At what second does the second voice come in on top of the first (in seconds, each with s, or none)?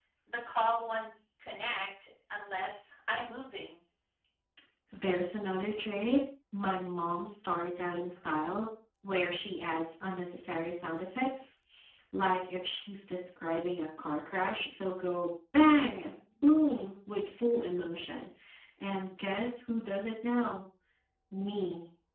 none